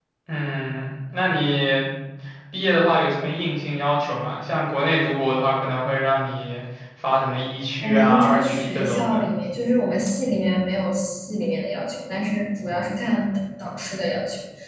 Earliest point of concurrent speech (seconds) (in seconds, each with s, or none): 7.8 s